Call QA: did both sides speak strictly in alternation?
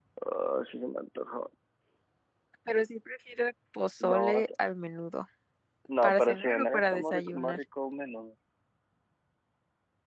No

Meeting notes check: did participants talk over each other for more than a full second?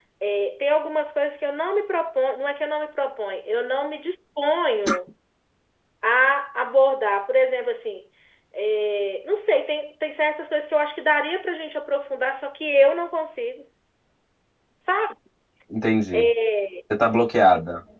No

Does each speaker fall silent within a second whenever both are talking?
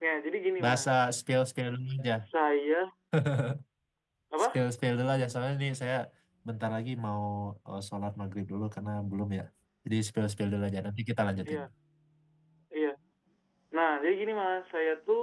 Yes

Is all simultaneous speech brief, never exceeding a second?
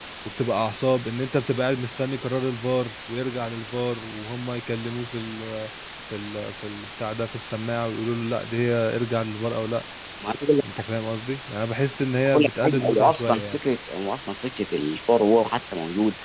No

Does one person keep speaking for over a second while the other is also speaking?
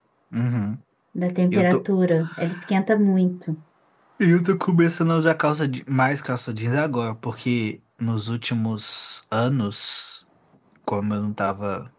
No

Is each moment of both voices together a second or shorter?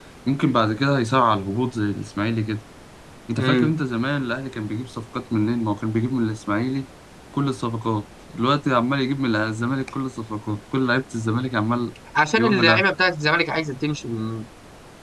Yes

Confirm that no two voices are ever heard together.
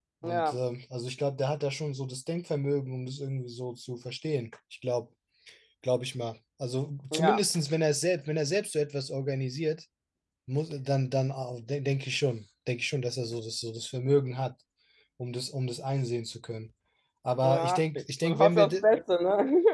No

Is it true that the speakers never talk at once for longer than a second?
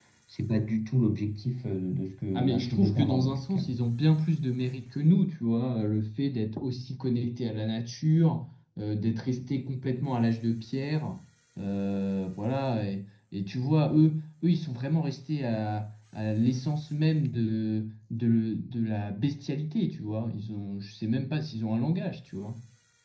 No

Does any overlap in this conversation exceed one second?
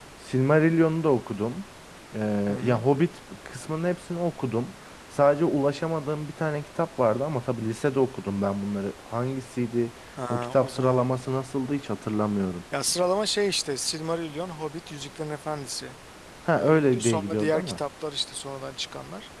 Yes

